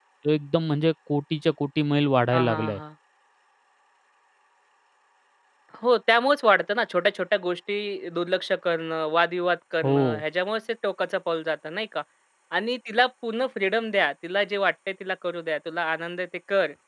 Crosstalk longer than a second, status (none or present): none